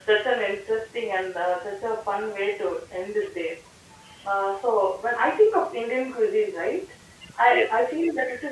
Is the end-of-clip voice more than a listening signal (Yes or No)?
No